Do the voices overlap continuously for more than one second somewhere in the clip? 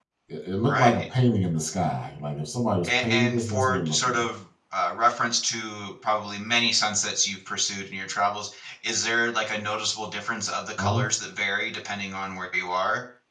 Yes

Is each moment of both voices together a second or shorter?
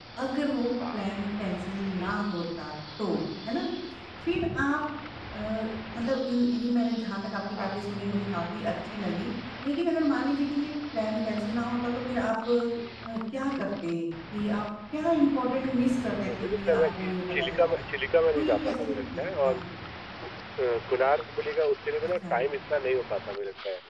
No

